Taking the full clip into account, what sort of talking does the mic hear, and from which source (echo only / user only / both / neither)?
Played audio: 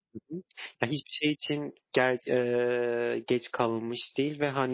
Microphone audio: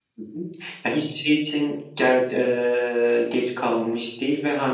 echo only